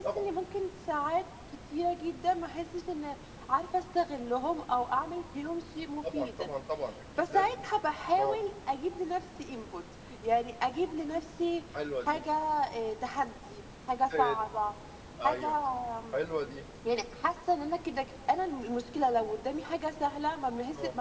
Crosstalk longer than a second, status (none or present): none